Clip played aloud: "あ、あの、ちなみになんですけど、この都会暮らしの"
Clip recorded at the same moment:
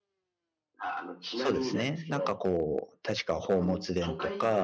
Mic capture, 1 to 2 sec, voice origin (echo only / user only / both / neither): both